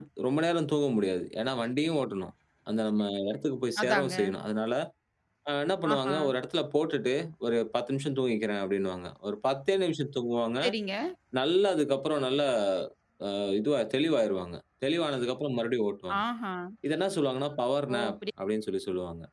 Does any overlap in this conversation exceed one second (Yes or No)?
No